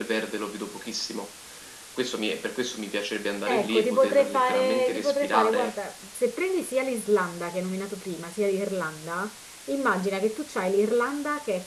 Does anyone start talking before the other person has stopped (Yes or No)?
Yes